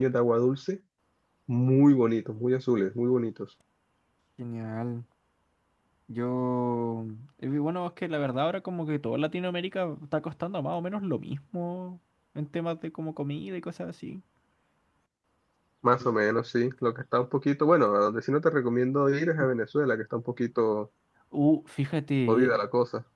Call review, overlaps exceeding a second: none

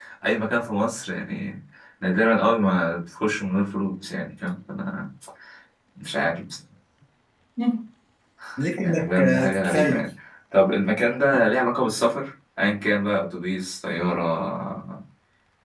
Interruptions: present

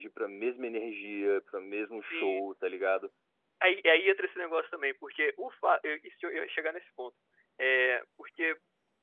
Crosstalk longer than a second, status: none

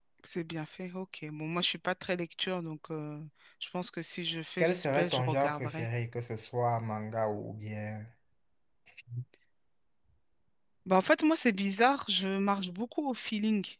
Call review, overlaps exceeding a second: present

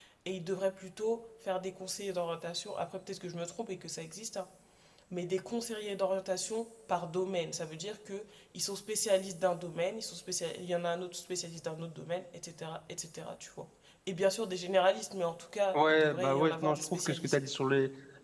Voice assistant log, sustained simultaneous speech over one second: present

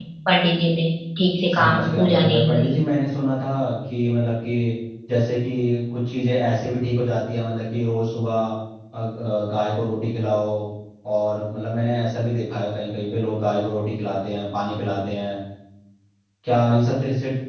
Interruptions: present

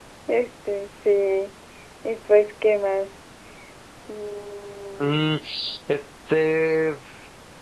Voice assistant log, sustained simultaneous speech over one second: none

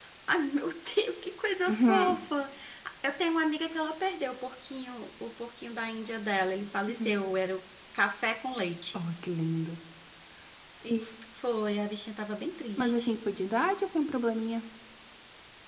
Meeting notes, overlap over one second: none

